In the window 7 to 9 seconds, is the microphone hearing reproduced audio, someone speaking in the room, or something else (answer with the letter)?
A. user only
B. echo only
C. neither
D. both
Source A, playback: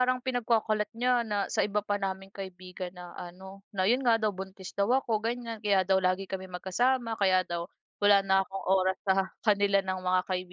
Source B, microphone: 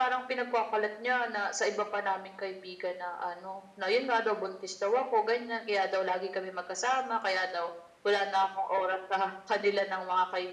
B